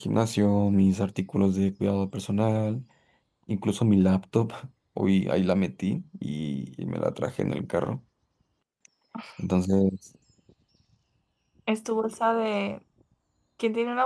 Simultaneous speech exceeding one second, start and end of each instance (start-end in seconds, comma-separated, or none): none